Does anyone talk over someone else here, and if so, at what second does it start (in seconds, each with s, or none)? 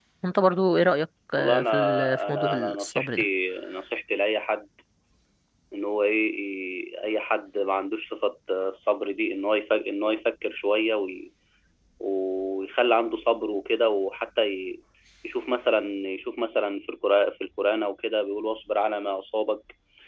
1.4 s